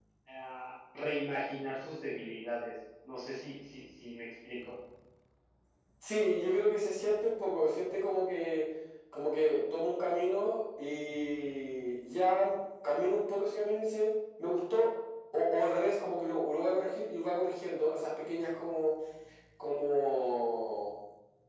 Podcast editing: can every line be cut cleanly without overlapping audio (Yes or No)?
Yes